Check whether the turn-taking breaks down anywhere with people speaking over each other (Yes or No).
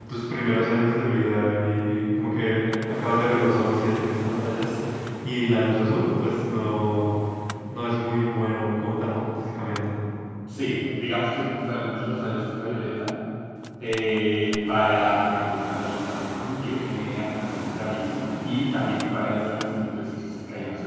No